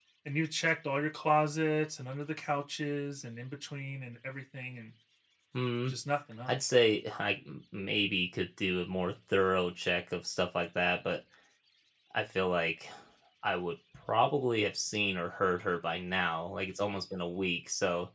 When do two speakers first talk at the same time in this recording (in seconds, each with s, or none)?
none